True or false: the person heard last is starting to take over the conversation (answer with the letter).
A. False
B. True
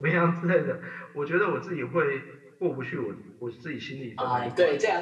B